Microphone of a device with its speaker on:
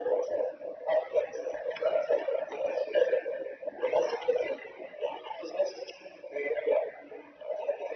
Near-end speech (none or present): none